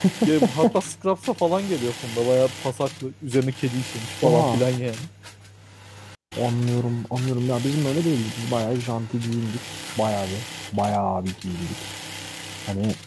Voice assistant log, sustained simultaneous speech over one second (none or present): none